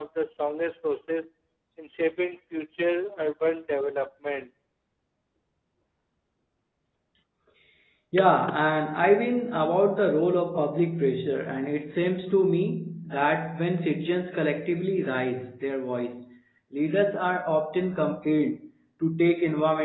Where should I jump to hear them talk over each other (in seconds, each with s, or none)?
none